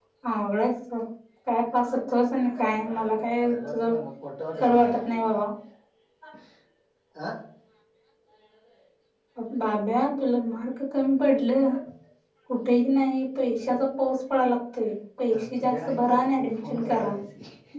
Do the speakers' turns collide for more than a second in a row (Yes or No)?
Yes